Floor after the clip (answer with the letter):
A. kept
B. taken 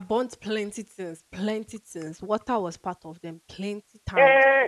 B